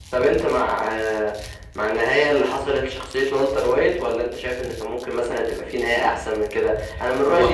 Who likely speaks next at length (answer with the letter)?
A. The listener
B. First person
B